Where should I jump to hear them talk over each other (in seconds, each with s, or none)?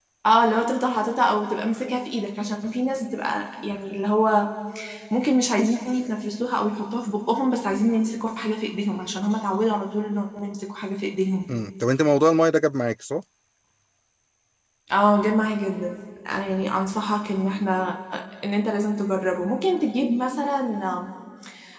none